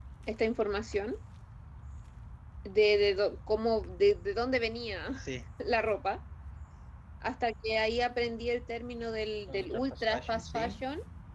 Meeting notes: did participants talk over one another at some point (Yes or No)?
Yes